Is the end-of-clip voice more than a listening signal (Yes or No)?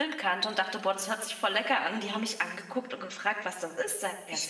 Yes